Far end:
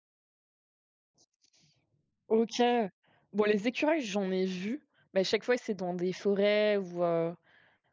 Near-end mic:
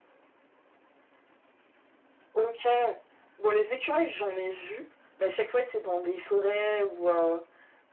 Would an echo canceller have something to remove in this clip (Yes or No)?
Yes